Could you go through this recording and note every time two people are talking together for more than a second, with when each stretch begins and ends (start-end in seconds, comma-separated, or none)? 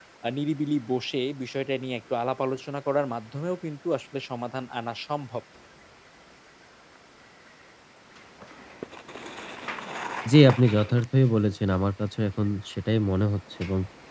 none